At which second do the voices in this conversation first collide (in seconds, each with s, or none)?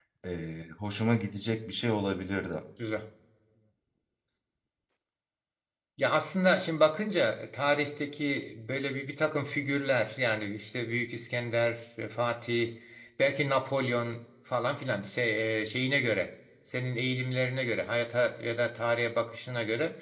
none